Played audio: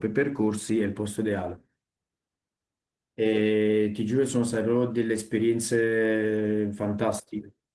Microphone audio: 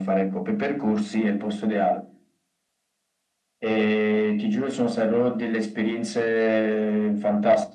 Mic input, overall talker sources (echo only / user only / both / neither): echo only